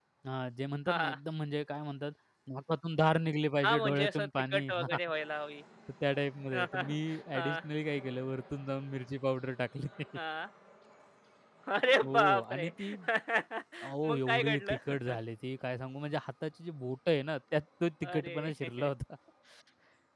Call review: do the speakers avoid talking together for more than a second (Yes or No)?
No